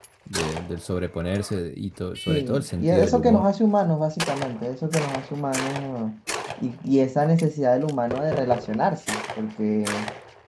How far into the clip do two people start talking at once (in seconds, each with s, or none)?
2.3 s